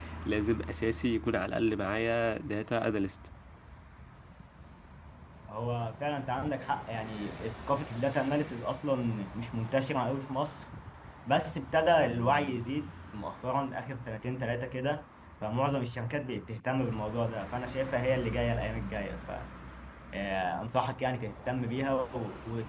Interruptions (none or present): none